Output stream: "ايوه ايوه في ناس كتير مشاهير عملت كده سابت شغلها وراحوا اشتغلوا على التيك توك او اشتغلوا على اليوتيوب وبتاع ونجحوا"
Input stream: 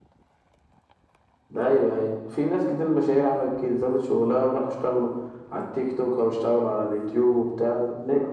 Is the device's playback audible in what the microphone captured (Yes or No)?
Yes